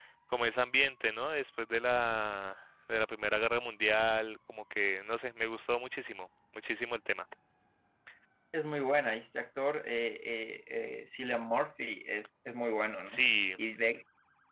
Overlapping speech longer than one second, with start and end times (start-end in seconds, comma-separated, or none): none